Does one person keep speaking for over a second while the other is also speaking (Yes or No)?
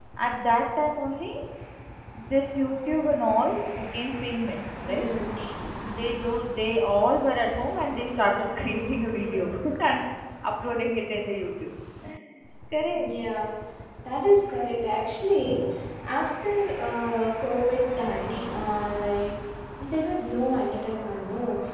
No